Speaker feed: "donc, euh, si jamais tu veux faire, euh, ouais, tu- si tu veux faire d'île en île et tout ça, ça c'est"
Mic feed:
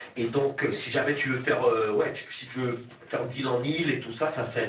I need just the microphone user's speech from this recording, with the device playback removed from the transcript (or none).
none